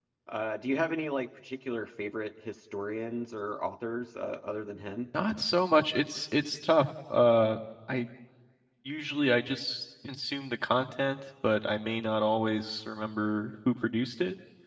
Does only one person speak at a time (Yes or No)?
Yes